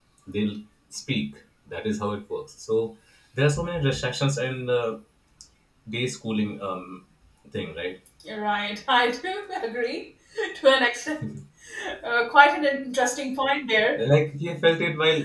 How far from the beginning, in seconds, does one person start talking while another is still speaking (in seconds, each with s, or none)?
none